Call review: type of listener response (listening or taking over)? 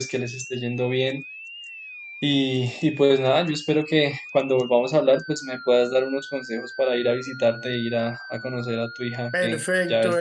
taking over